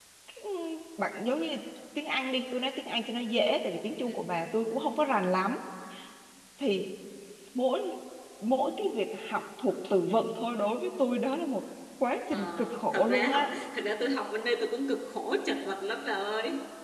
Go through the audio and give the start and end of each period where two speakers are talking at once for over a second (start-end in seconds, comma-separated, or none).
12.3-13.5